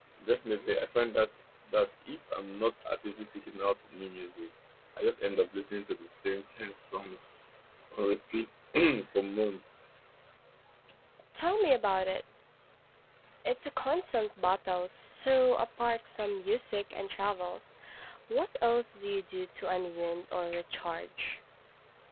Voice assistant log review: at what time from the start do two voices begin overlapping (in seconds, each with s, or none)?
none